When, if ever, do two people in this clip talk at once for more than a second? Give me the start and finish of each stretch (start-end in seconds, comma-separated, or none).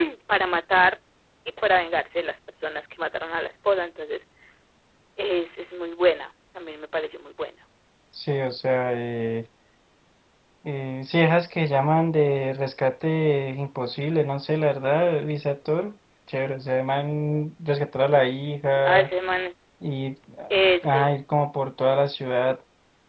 none